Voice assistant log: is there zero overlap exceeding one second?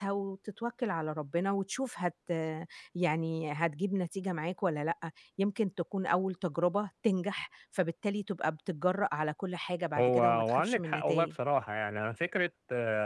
No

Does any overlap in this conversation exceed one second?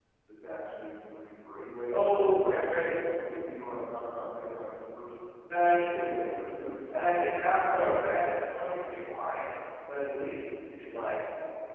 No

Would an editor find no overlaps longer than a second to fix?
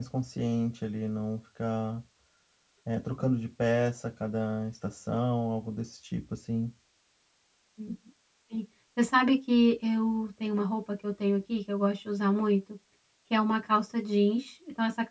Yes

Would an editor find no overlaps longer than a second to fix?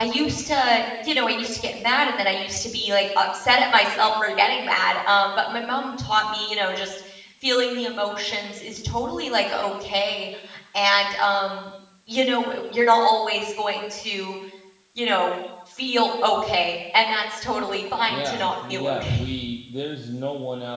No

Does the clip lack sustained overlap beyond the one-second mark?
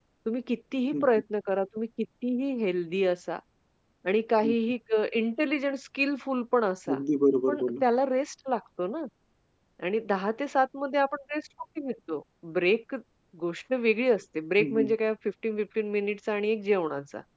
Yes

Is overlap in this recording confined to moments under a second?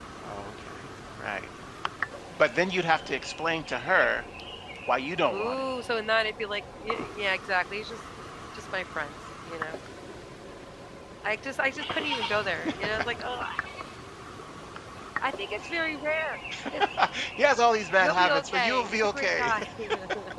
No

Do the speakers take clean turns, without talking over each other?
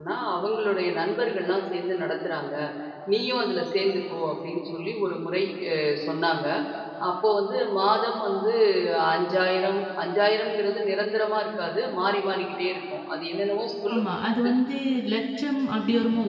Yes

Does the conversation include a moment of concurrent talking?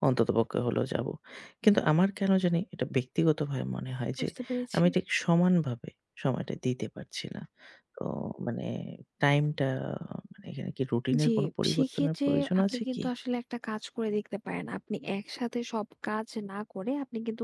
Yes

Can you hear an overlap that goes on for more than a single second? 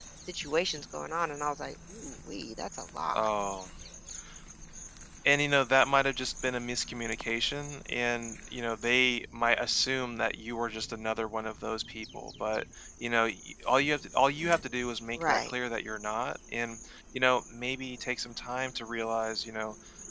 No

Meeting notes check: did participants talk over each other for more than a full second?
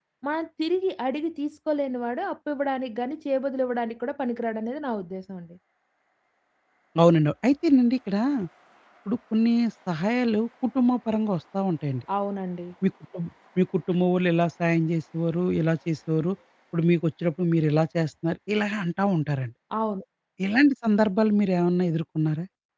No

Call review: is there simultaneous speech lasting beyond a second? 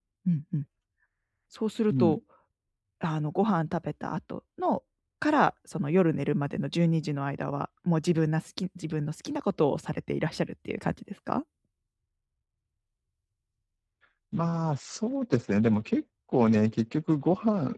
No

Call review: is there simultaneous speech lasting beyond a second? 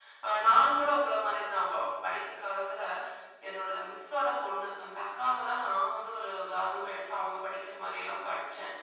No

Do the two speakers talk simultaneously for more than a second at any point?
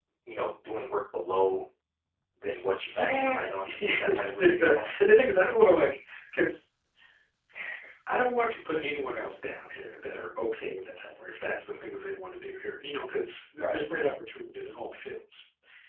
Yes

